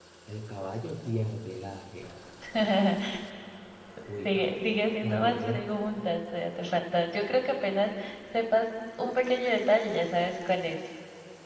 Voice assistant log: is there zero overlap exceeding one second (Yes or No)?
No